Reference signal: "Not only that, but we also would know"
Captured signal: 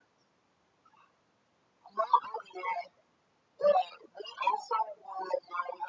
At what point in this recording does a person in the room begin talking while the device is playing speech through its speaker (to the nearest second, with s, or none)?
none